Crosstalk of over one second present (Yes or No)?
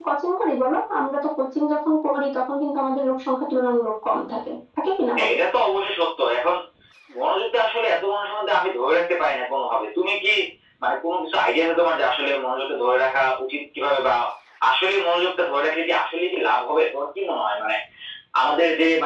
No